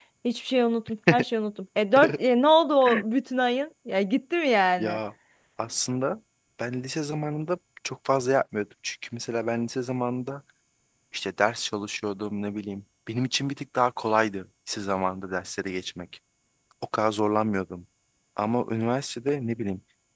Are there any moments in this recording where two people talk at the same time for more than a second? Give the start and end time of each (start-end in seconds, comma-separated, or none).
none